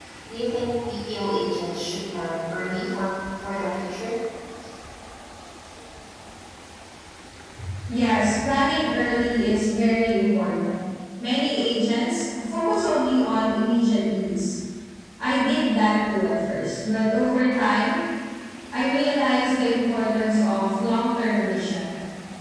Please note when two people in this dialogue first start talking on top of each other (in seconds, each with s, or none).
none